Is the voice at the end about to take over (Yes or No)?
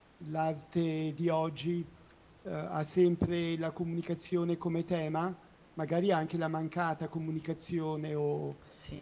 No